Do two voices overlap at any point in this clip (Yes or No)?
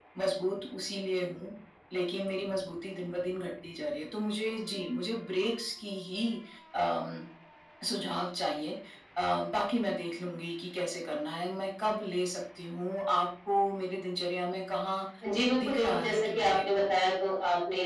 Yes